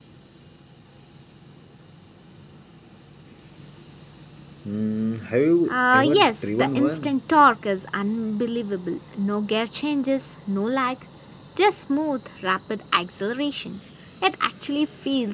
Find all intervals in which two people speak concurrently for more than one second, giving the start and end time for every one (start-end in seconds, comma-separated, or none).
5.7-7.2